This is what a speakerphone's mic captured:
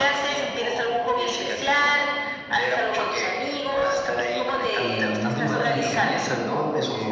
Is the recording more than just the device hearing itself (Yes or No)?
Yes